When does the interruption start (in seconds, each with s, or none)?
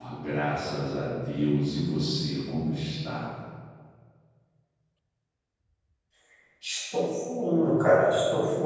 none